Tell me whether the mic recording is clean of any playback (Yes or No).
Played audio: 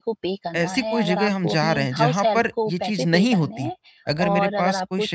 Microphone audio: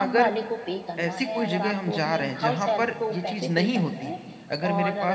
No